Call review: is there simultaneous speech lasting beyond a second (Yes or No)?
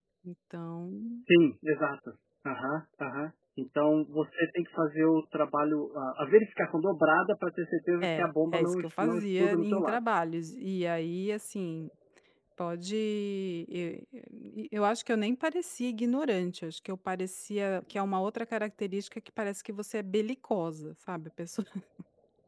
Yes